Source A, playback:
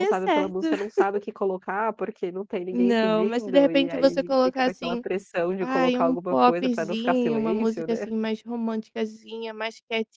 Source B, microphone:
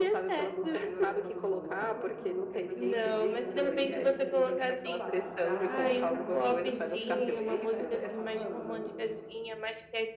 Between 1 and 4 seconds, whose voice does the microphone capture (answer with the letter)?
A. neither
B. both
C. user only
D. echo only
B